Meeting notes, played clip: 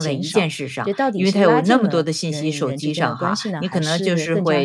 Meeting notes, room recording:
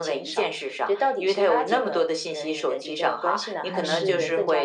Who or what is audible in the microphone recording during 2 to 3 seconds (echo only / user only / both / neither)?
echo only